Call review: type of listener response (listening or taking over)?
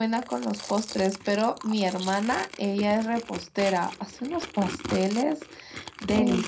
listening